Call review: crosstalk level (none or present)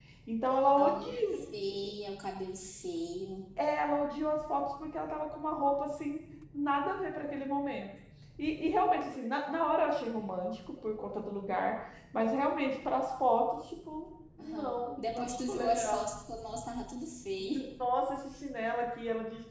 present